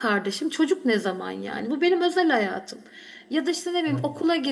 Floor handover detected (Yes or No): No